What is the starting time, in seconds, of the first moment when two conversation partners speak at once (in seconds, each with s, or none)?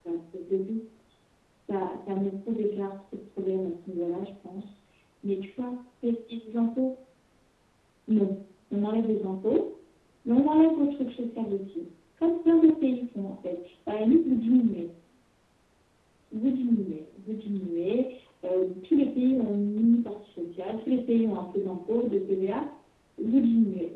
none